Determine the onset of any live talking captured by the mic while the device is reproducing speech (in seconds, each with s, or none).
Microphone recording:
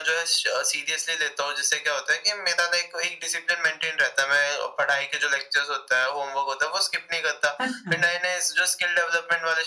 7.6 s